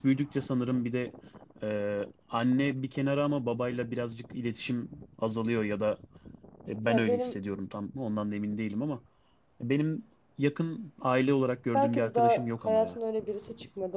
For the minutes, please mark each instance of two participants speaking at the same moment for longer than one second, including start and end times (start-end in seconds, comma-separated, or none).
11.7-13.0